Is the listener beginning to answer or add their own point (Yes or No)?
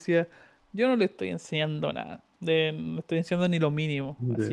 No